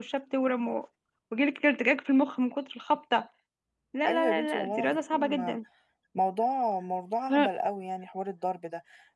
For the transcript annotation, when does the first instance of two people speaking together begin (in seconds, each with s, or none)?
4.1 s